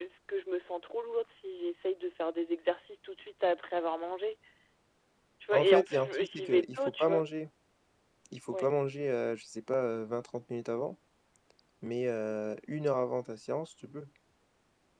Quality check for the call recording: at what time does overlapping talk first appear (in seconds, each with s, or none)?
5.5 s